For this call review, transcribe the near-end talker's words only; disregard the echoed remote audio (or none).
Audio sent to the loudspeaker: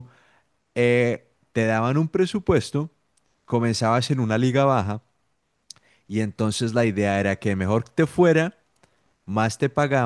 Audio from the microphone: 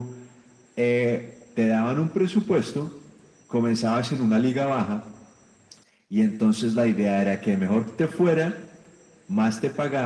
none